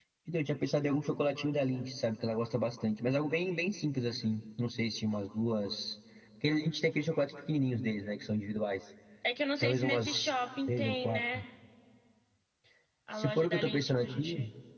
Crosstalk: present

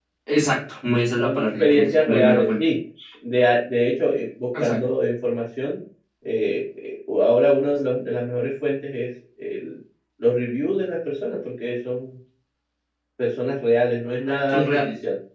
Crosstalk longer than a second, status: present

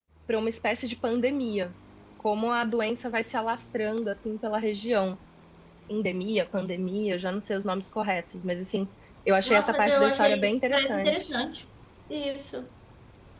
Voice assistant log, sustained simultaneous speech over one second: present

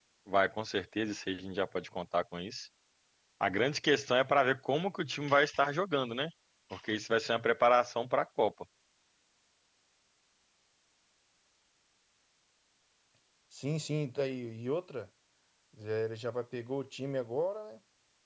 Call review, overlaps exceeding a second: none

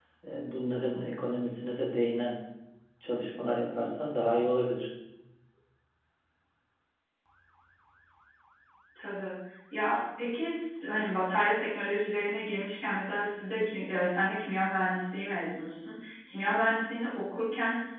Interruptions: none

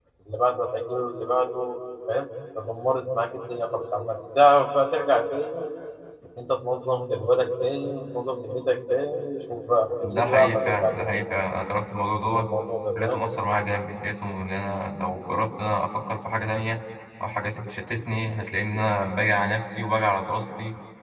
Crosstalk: present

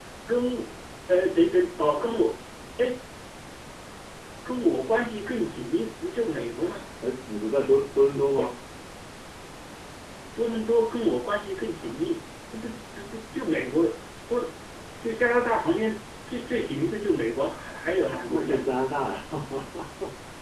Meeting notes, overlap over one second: none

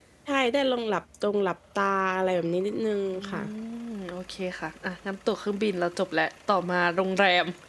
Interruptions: none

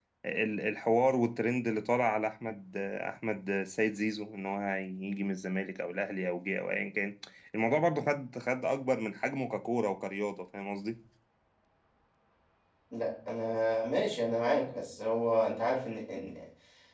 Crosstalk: none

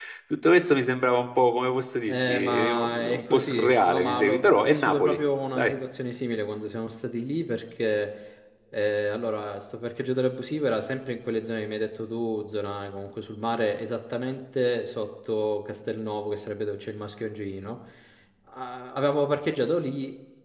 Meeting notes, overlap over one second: present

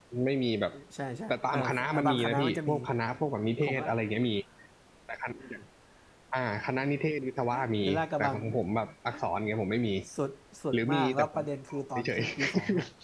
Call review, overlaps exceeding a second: present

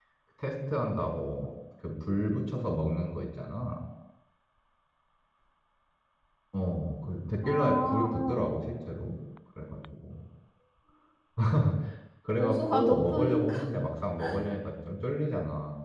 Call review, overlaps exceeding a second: present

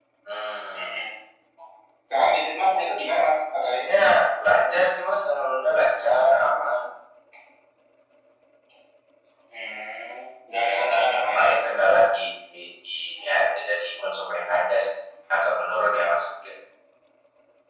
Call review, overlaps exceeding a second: none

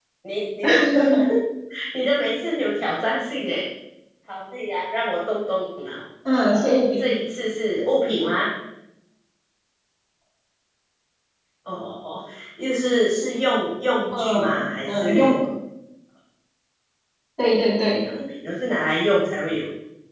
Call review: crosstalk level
present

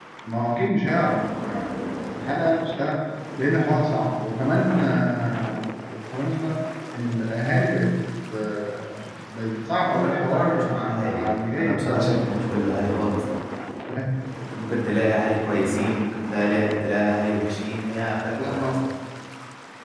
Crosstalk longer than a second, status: present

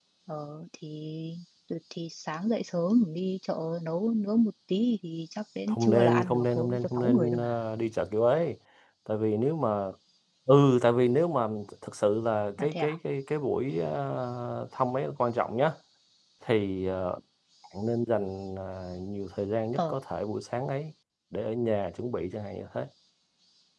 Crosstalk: present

